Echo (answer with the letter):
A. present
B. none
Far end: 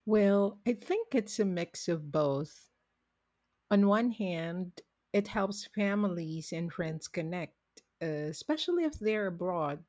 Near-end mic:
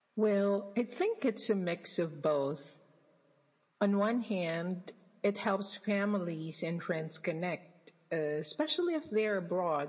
A